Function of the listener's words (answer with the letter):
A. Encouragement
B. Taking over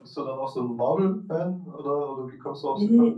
B